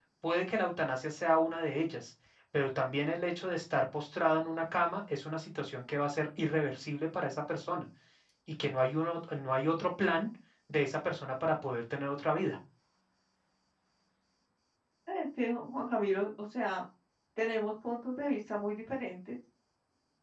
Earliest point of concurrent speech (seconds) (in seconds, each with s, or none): none